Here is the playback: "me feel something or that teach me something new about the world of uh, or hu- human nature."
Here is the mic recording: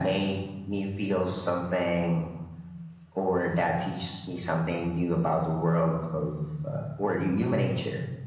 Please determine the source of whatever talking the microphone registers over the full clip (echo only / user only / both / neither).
echo only